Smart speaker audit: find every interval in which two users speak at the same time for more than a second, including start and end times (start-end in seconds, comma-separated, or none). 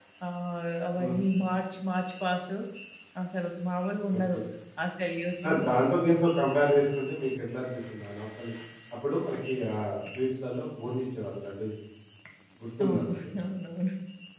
none